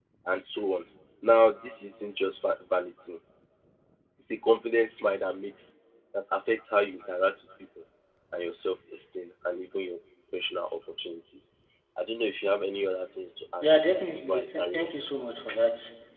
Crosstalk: present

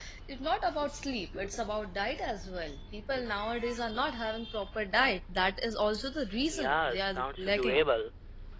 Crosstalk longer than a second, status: present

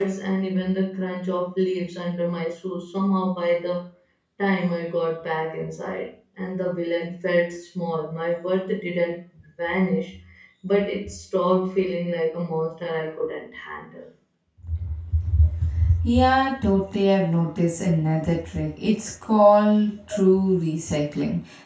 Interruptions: none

